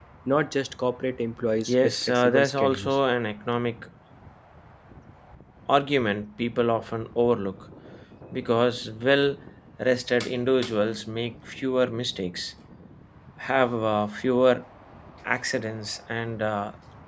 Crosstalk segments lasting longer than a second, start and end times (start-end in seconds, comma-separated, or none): 1.6-3.0